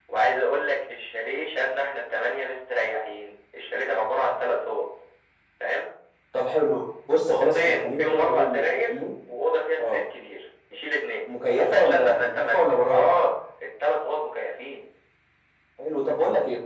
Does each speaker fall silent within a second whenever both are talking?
No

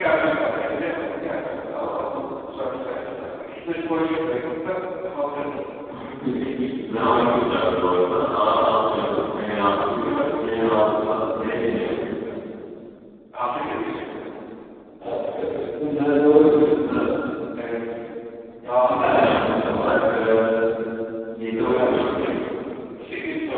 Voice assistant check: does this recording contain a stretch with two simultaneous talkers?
Yes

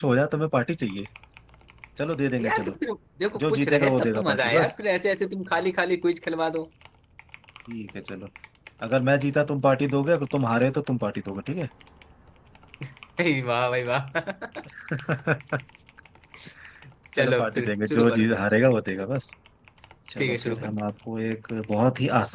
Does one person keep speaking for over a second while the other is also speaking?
Yes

